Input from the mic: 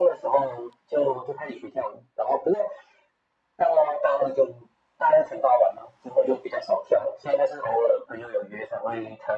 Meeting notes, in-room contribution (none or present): none